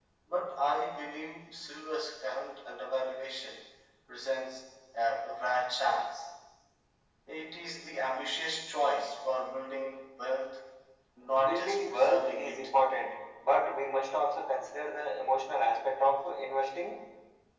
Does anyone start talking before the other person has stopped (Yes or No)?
Yes